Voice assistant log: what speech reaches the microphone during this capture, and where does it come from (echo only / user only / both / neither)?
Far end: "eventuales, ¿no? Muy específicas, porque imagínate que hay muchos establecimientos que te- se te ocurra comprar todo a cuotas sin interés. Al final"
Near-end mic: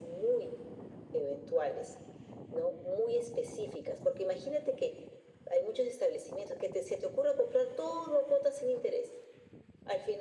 echo only